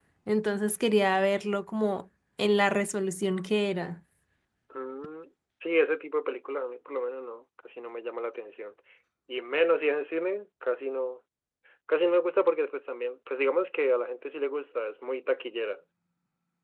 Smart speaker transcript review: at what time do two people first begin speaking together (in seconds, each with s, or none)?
none